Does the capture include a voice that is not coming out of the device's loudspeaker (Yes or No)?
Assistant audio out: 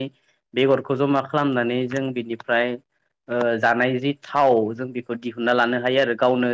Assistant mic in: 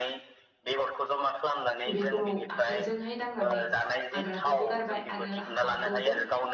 Yes